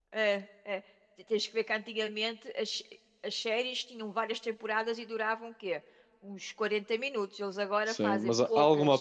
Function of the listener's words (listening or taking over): taking over